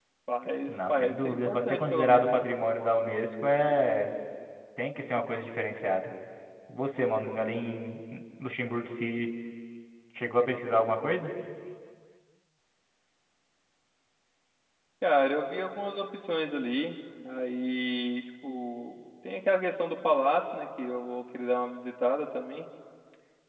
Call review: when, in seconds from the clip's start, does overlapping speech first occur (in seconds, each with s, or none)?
0.7 s